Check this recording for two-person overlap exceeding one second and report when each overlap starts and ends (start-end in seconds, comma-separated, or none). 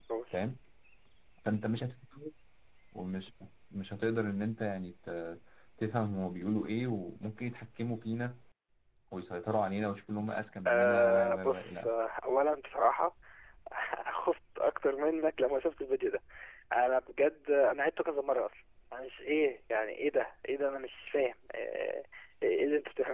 10.7-11.9